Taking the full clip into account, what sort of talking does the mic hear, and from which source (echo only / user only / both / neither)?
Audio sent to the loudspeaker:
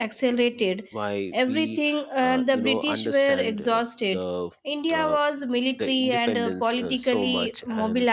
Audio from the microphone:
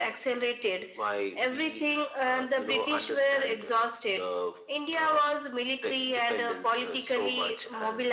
echo only